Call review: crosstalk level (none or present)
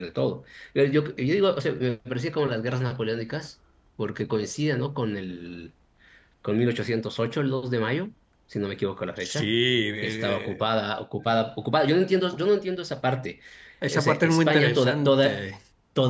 present